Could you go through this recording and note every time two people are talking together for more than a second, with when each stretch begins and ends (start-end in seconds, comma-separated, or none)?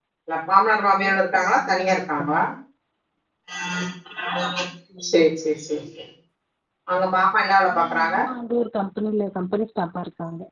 1.1-2.4